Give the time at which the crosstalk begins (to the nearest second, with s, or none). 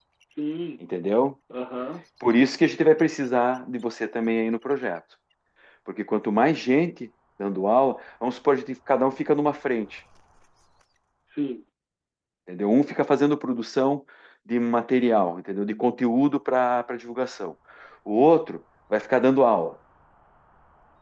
none